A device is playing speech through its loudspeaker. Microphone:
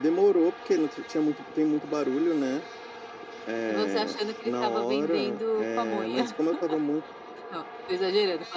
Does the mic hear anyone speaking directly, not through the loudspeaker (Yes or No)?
No